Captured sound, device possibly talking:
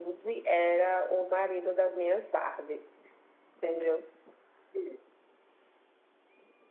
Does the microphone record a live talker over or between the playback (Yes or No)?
No